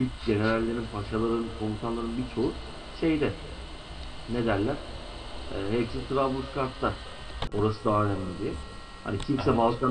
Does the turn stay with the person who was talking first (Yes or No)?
Yes